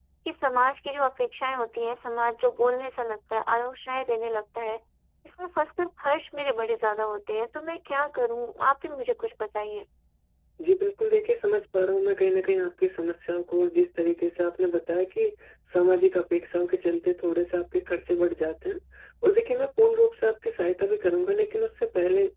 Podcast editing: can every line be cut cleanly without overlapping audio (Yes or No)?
Yes